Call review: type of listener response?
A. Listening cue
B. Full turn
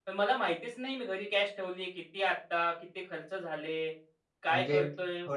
B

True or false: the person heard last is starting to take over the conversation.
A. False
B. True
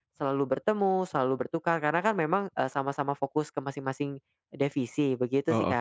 B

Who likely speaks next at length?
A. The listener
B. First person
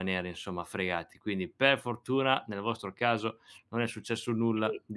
A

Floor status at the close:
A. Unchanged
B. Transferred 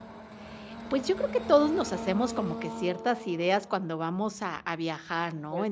A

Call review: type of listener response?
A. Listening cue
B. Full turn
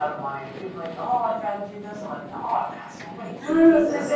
B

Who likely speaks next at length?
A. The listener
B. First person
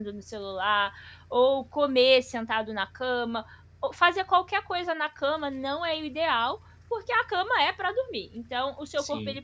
B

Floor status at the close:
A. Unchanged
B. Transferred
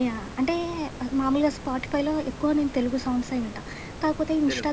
A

